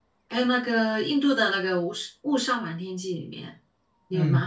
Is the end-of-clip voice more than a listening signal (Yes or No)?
Yes